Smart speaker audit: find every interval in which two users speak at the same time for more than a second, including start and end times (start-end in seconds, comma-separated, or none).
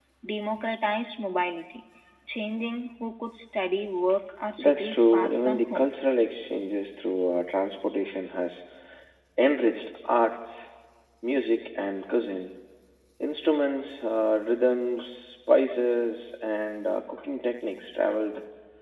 4.6-5.9